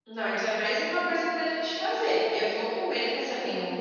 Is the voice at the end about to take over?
No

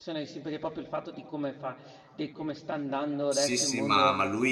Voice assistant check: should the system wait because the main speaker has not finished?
No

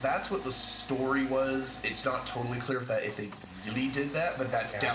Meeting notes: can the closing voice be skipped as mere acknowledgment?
Yes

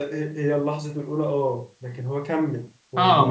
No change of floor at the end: No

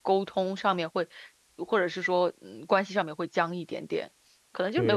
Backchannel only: No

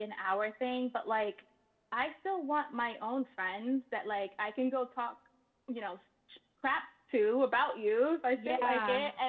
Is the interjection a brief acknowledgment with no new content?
Yes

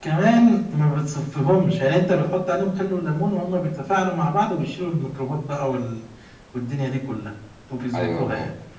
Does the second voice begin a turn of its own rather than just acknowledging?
Yes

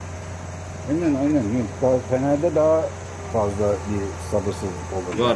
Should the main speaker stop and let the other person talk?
Yes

